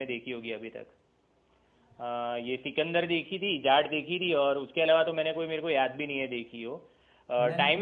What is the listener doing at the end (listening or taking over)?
listening